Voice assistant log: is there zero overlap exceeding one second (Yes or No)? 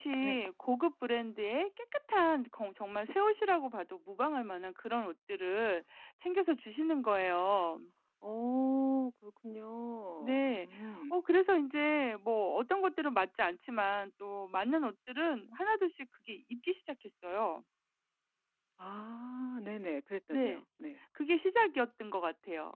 Yes